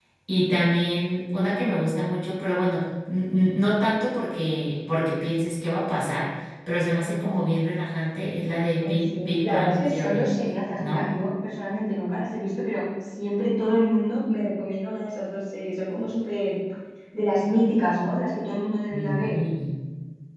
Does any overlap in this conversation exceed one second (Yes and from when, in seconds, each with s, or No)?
Yes, from 8.8 s